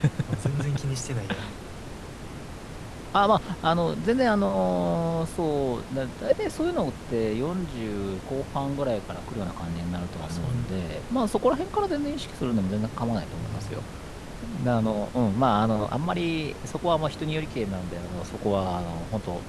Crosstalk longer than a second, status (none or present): none